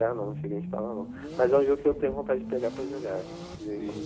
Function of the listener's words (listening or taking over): taking over